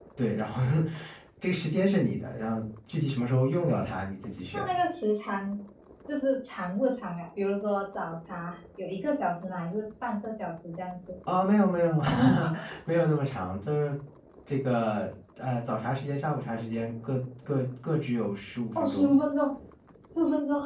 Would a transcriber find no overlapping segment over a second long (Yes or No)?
Yes